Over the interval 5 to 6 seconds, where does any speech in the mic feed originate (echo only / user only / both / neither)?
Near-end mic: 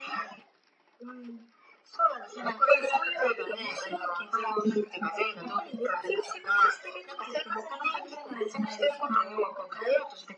echo only